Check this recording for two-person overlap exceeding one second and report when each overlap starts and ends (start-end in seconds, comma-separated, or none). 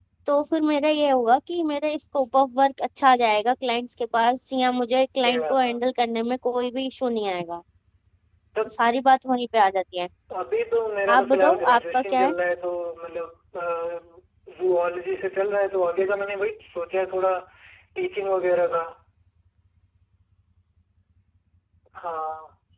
11.1-12.3